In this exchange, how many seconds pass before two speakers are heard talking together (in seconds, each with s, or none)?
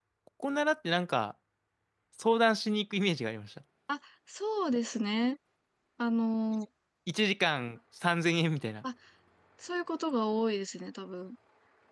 none